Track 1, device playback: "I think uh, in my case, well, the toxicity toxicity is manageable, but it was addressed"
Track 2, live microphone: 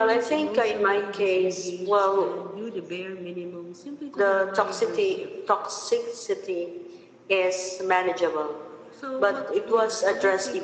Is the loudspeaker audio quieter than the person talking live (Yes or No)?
No